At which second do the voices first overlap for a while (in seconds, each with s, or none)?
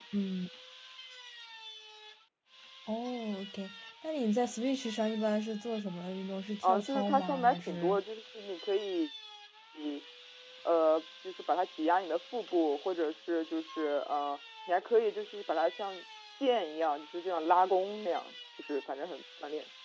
6.6 s